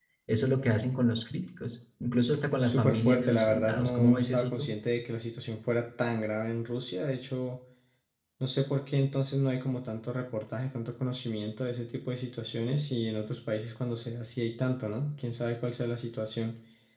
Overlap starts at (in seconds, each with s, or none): 2.6 s